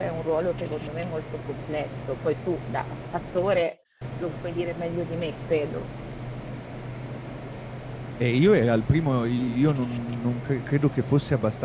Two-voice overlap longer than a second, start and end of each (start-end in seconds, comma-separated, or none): none